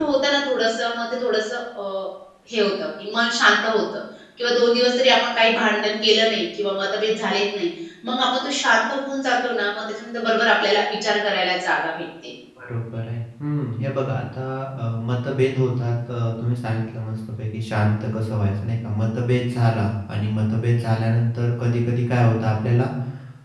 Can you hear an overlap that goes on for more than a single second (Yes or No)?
No